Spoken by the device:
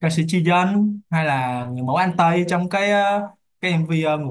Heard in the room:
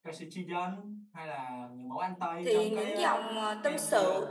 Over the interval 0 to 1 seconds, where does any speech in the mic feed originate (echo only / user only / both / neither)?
echo only